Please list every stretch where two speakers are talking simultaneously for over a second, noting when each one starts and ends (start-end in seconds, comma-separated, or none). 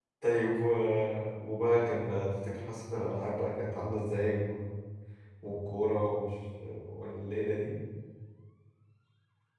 none